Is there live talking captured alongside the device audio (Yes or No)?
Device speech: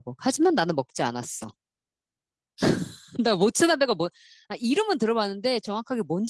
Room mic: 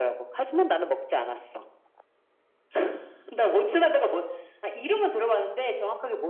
No